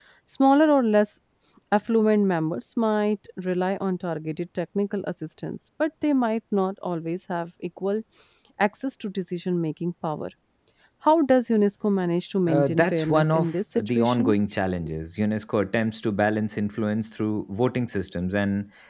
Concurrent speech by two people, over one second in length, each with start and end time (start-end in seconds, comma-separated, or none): 12.5-14.3